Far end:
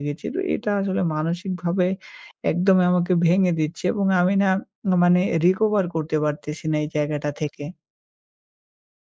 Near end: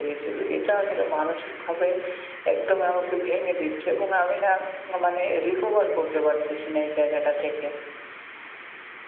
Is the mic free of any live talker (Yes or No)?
Yes